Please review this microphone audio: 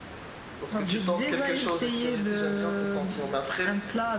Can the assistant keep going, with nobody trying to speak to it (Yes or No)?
No